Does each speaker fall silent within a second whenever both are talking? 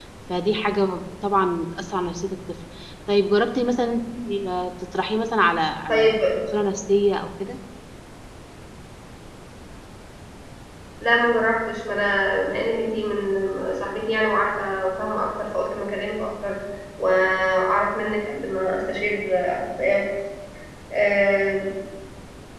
Yes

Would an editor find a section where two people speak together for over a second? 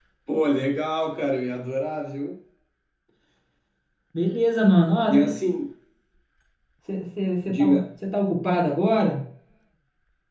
No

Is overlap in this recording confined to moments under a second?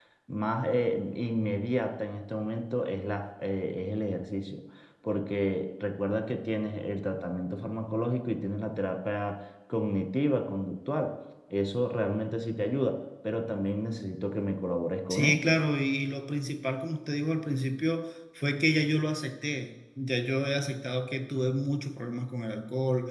Yes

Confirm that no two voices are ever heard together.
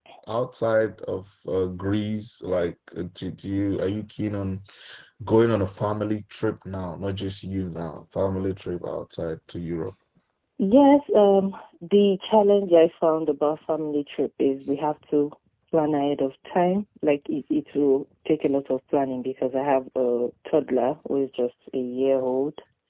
Yes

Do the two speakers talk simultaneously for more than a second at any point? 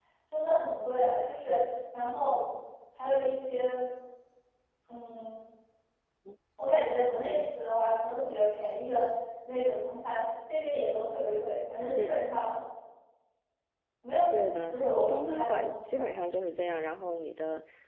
Yes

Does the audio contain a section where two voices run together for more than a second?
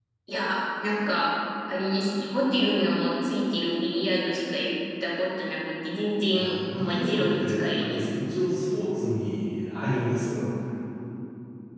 Yes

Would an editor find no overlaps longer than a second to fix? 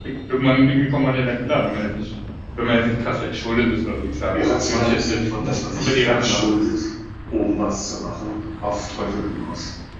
No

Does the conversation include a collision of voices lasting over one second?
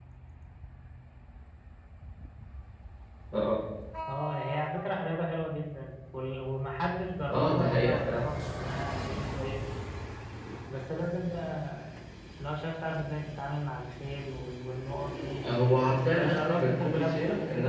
Yes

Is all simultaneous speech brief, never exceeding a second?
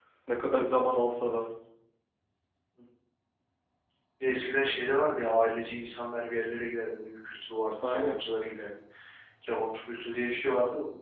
Yes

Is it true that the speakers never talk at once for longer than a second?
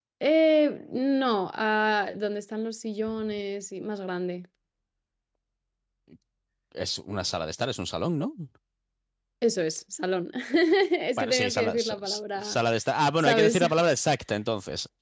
No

